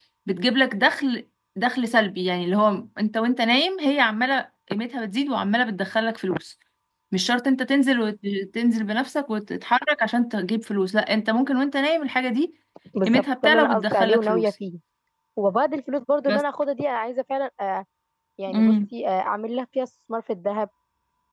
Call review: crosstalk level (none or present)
present